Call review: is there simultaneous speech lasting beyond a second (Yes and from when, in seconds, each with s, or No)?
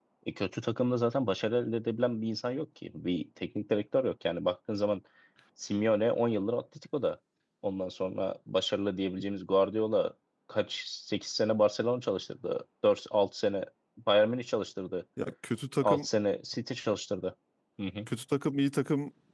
No